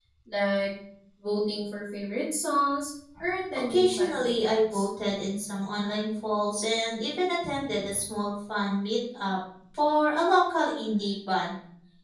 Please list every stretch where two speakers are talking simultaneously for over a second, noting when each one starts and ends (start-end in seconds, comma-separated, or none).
3.5-4.9